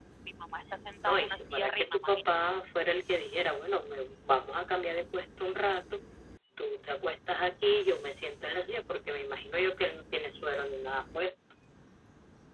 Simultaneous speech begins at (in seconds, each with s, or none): 1.1 s